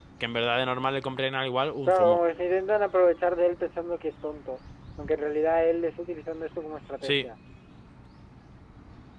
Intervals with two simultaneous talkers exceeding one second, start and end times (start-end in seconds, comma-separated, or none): none